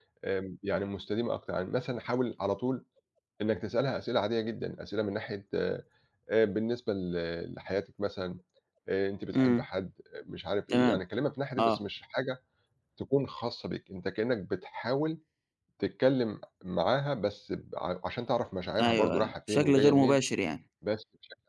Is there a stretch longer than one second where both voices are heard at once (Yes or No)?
Yes